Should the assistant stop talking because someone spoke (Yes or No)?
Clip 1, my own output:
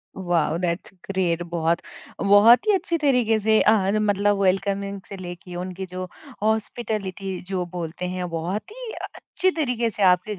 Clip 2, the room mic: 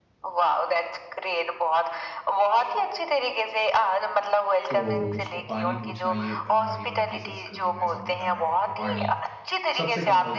Yes